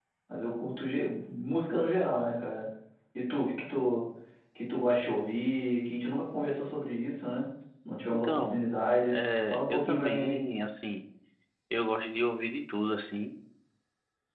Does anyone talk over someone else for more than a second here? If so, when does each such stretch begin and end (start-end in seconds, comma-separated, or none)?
9.1-10.4